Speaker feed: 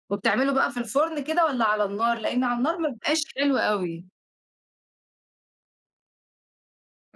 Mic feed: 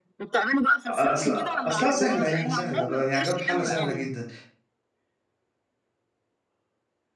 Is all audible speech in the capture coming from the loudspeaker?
No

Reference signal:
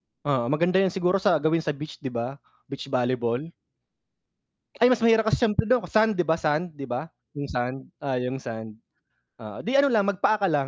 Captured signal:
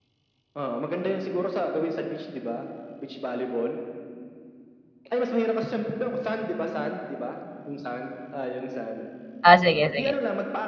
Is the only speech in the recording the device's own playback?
No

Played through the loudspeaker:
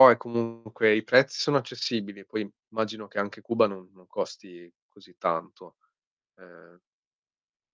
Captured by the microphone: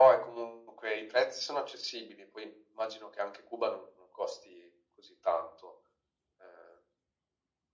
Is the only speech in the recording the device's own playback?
Yes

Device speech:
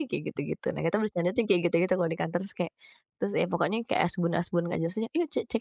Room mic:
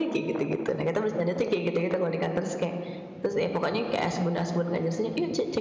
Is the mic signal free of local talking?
Yes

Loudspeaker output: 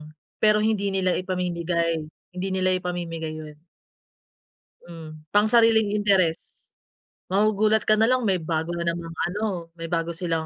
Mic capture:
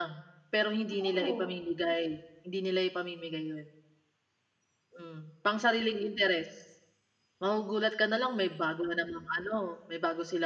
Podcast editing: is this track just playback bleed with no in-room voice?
No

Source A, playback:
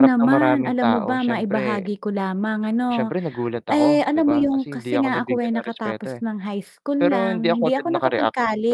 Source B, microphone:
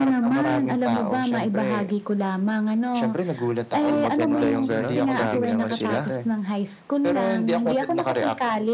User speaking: Yes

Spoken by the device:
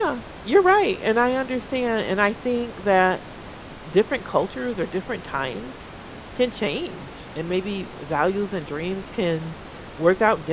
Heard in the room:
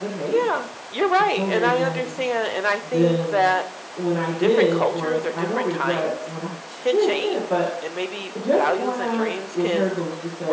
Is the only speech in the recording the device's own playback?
No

